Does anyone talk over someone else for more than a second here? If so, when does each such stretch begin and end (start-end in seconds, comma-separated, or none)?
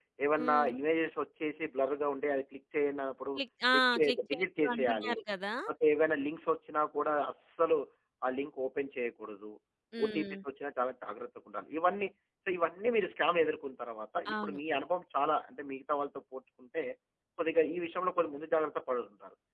3.7-5.1